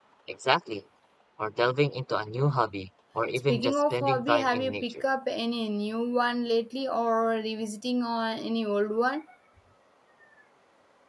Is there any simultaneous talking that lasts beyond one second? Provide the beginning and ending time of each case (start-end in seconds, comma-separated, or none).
3.5-5.0